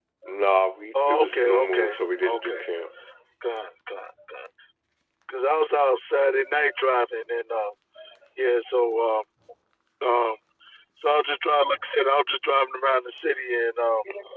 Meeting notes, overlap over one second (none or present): present